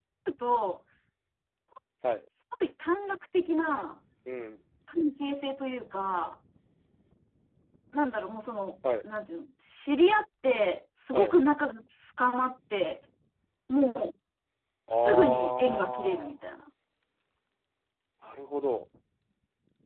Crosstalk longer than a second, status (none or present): present